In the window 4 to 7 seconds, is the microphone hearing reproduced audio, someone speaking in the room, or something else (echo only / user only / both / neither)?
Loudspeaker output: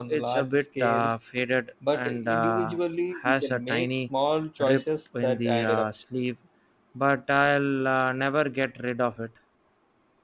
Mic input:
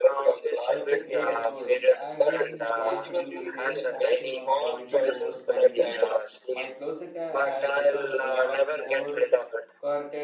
both